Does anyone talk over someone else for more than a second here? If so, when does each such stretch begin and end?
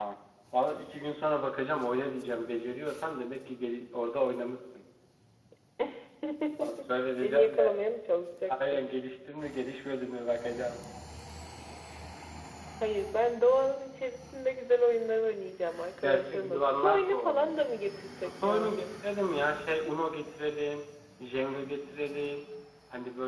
16.0-17.5

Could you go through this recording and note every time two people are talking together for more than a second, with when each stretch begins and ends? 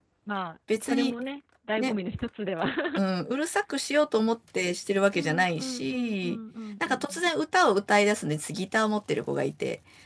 5.1-6.4

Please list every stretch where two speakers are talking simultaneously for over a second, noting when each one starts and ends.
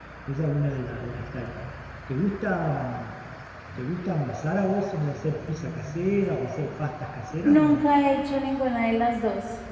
none

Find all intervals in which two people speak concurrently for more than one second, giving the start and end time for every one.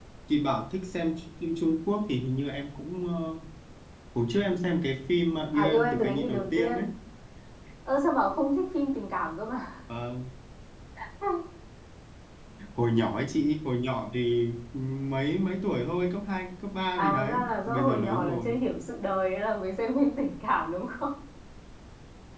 5.5-6.8, 17.0-18.6

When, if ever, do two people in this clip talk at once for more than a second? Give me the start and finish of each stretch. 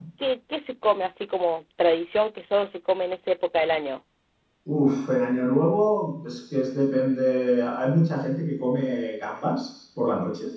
none

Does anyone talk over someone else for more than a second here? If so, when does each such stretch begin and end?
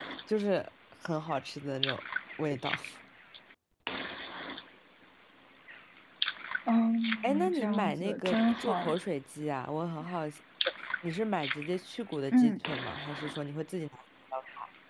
7.2-8.9

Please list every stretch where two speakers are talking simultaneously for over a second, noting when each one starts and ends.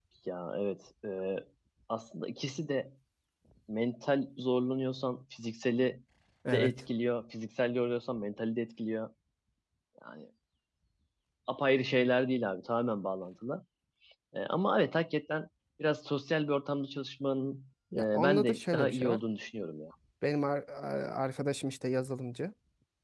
17.9-19.2

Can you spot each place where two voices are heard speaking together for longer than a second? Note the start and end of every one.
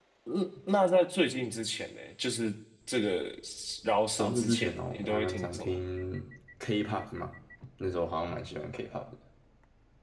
4.2-5.8

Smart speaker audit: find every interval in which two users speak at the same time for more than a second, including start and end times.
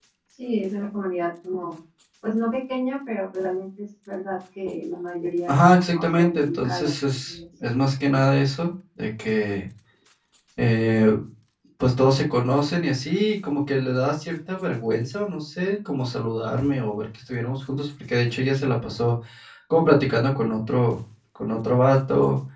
5.5-7.4

